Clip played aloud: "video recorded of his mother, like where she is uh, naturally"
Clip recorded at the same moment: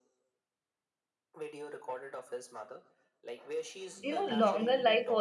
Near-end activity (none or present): present